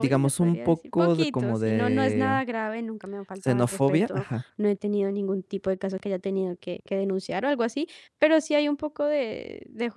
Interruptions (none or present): present